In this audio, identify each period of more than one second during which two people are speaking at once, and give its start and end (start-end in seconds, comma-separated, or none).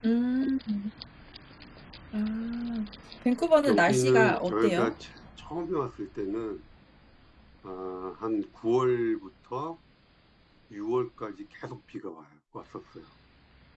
3.7-4.9